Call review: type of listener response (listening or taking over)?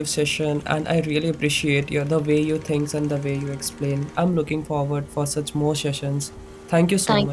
taking over